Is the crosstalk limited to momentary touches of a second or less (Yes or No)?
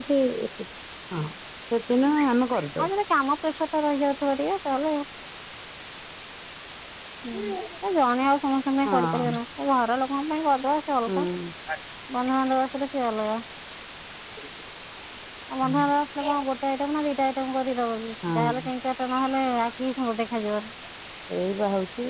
Yes